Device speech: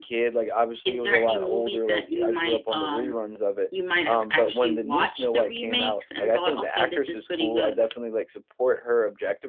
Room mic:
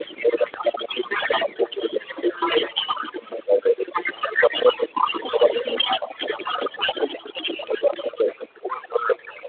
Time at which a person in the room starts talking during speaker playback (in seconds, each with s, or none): none